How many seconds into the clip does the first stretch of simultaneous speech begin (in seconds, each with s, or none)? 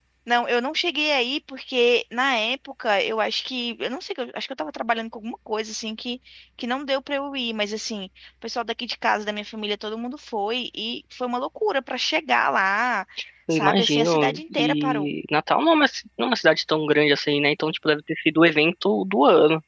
13.5 s